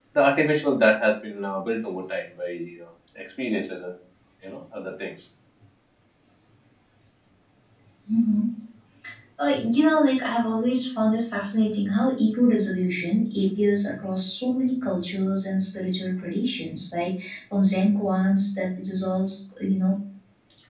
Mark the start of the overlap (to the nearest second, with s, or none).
none